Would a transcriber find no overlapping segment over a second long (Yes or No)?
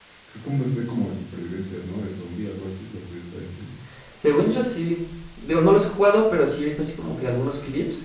Yes